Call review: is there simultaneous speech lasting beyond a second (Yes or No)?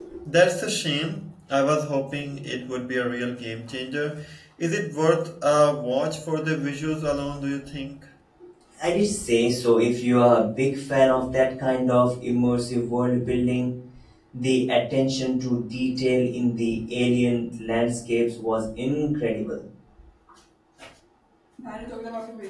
No